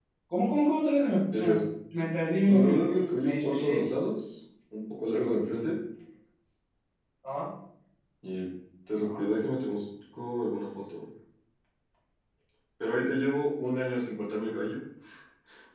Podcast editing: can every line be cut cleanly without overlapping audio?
No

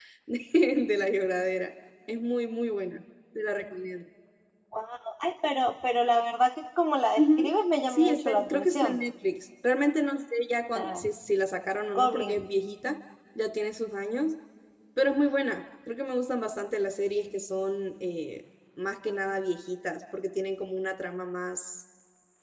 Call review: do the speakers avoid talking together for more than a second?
No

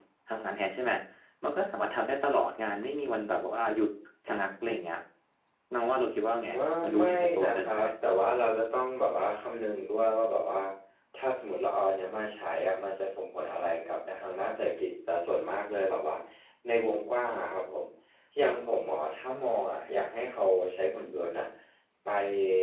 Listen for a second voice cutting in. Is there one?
Yes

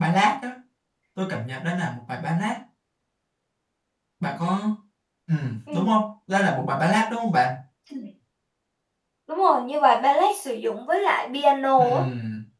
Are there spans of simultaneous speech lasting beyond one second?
No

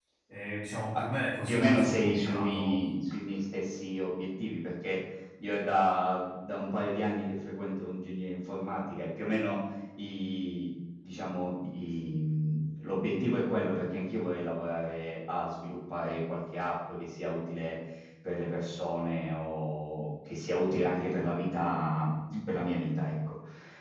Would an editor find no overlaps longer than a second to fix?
No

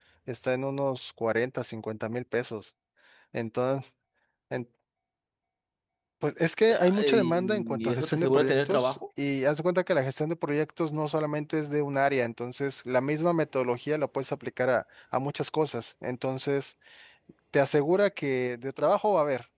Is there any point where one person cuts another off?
Yes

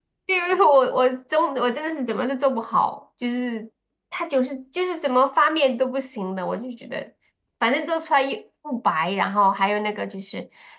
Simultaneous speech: No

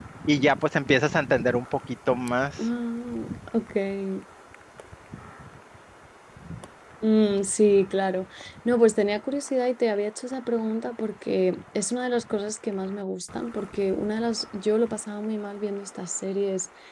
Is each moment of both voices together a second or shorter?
Yes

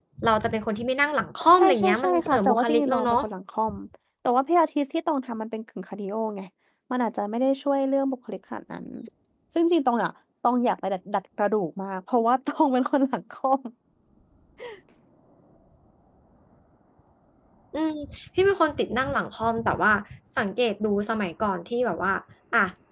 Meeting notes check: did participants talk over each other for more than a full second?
Yes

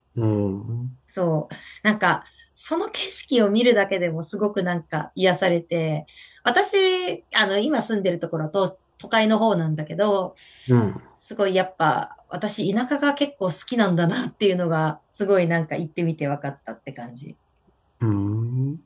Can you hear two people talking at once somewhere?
No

